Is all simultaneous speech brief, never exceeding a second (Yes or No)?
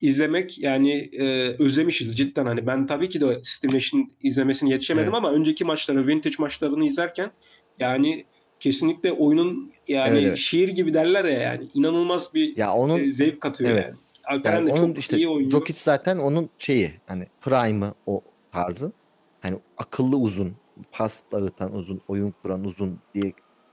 No